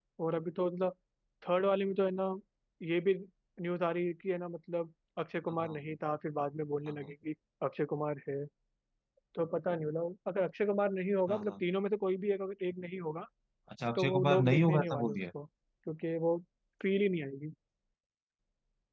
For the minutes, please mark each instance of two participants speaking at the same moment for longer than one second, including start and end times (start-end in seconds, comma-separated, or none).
14.0-15.2